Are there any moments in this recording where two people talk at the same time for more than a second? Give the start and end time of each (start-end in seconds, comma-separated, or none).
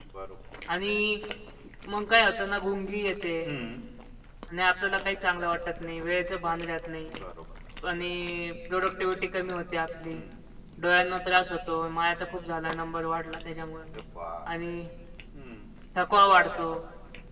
none